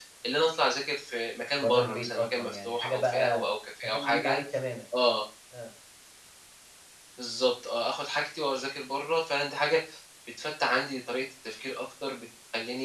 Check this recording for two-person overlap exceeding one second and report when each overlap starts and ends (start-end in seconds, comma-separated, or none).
1.6-3.4